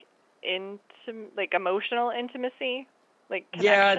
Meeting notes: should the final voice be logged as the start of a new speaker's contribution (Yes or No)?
Yes